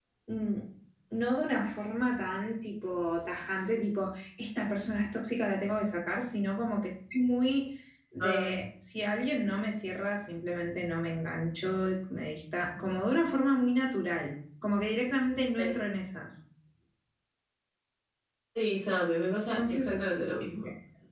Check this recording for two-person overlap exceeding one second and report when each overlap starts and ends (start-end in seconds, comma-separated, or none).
none